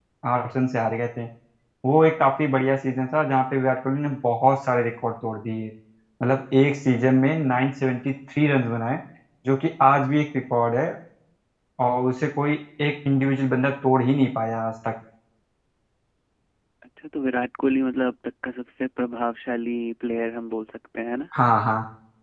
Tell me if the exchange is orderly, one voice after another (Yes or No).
Yes